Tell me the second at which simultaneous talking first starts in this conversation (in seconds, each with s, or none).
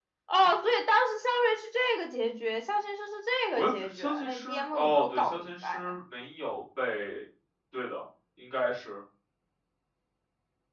3.5 s